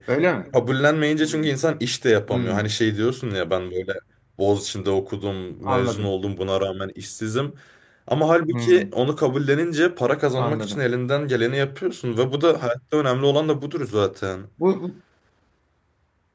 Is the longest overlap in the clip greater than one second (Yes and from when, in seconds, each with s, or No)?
No